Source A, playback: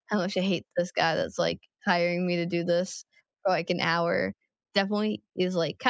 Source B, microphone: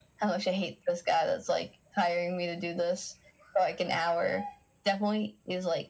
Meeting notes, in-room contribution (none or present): none